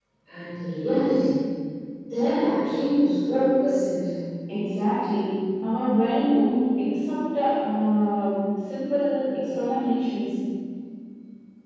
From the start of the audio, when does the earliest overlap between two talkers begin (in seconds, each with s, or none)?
none